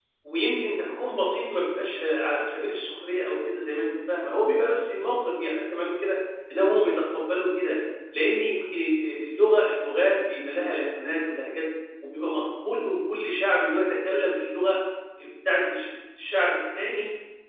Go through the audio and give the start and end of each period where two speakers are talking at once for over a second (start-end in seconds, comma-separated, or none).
none